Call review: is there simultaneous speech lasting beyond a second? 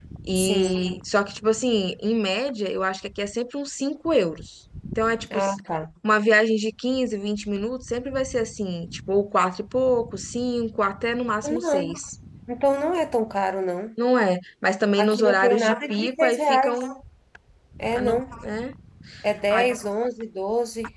Yes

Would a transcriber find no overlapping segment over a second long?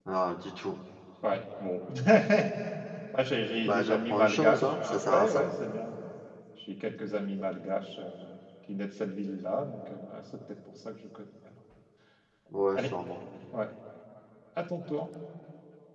No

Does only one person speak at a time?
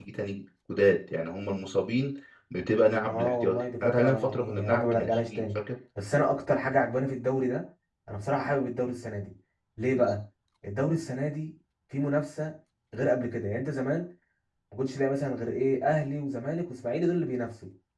No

